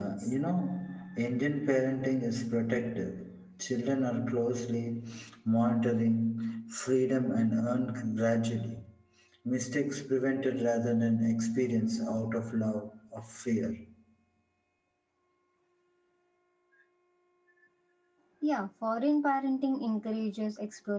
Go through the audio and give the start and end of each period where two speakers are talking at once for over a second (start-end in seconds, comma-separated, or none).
none